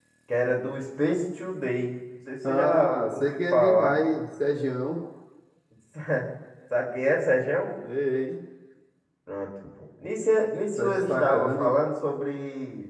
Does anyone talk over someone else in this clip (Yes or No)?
Yes